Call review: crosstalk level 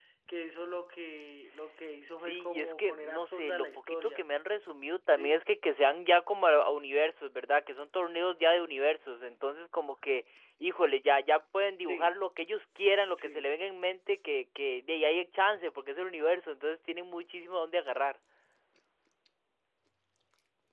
present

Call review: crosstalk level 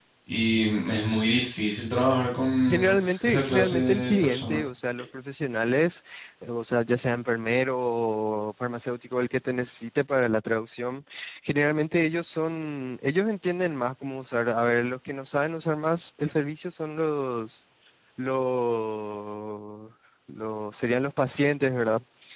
present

